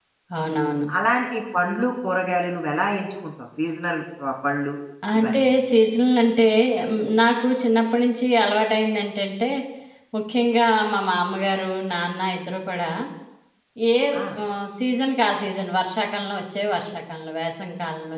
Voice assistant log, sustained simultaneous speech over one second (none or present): none